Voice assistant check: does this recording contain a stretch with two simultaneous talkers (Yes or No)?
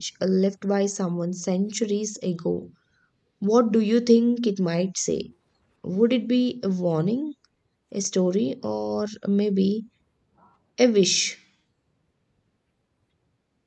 No